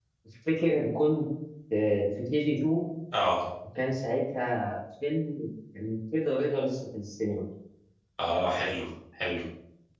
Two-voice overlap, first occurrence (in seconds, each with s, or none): none